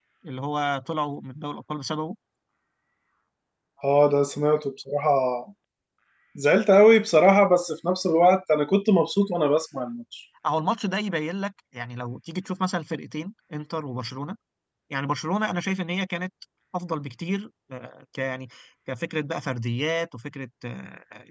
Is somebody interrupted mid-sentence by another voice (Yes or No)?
No